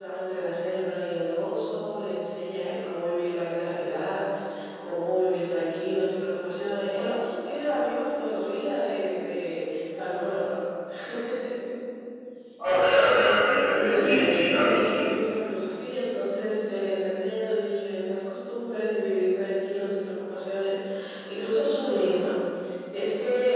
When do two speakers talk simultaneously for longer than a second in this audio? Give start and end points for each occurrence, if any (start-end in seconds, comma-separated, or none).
13.9-15.1